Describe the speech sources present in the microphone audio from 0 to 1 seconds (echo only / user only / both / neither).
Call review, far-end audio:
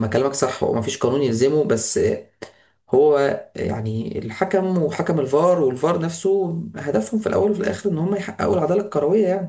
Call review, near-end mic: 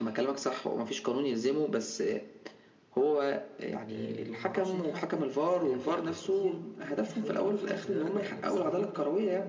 echo only